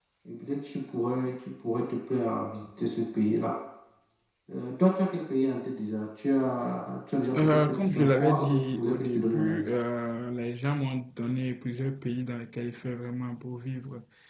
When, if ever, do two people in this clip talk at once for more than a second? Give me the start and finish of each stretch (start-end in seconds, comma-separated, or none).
7.4-9.7